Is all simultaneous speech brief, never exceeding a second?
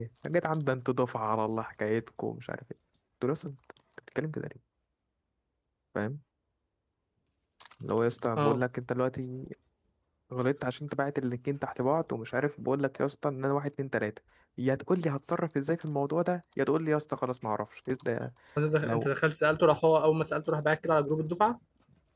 Yes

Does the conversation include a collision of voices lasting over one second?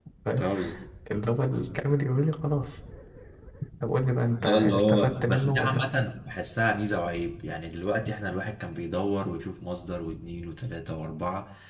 Yes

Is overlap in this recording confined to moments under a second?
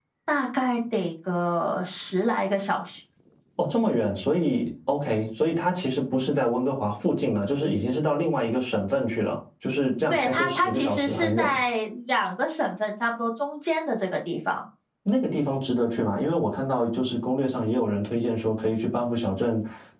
No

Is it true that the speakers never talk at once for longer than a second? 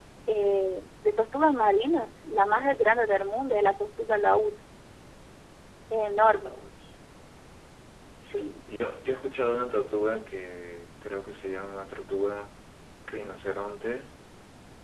Yes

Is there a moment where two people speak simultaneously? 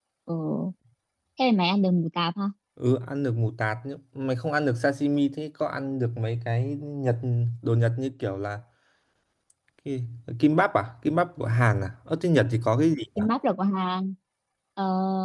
No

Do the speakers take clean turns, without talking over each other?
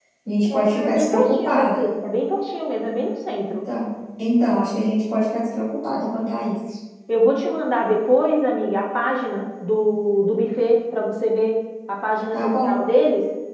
No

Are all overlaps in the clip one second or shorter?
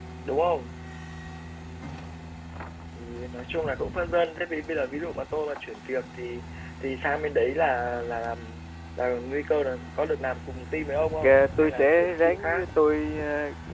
No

